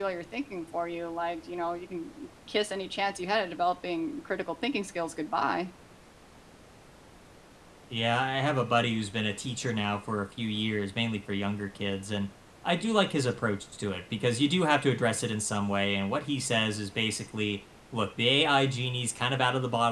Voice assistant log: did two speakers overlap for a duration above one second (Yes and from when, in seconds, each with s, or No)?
No